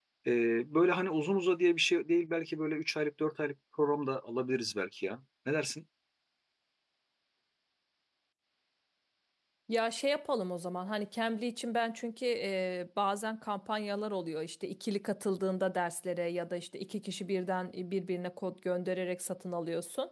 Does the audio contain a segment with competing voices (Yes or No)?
No